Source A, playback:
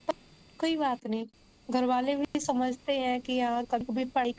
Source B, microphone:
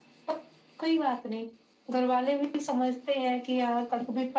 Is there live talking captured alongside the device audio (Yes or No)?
No